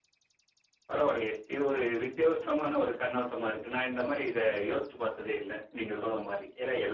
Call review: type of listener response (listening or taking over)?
taking over